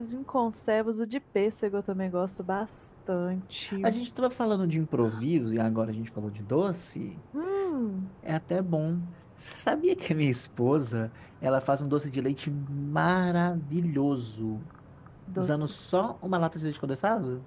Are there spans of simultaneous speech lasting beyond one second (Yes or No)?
No